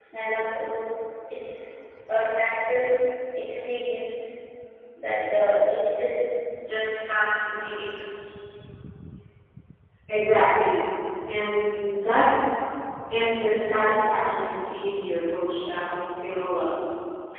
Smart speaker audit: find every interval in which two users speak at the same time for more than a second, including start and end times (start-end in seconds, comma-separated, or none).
none